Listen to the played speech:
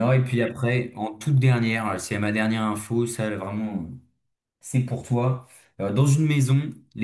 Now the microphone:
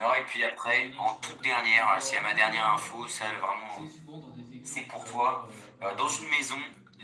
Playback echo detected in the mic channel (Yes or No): Yes